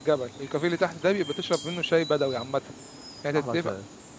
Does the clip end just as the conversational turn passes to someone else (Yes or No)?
No